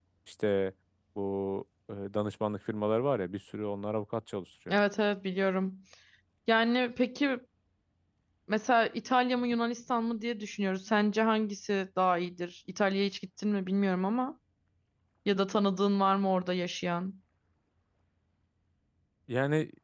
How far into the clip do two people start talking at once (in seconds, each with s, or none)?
none